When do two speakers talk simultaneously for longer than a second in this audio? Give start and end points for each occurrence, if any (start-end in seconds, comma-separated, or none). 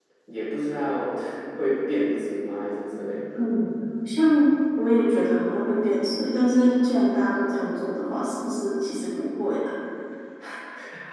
none